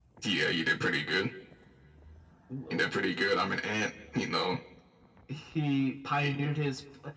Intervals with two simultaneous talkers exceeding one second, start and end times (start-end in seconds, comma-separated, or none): none